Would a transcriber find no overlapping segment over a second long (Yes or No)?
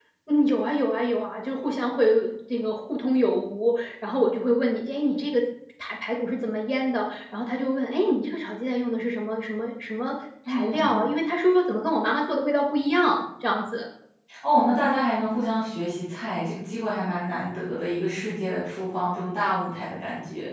Yes